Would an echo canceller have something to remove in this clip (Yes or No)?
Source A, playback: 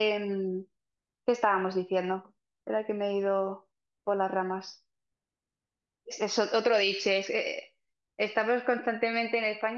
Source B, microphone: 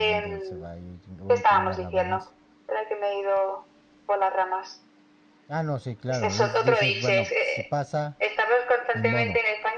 Yes